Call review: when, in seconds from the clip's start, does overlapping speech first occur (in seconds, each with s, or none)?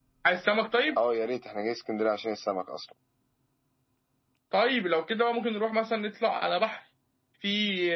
none